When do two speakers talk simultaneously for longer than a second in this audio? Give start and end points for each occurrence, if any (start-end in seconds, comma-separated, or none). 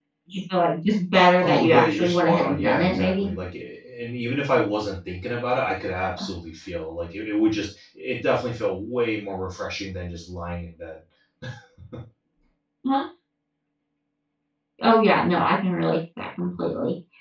1.4-3.3